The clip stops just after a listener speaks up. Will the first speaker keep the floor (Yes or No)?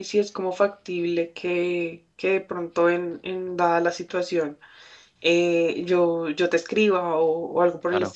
No